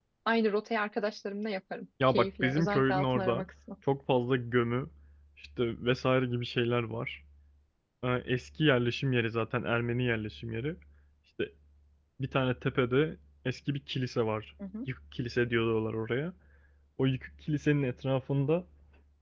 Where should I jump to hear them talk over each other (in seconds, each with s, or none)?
2.1 s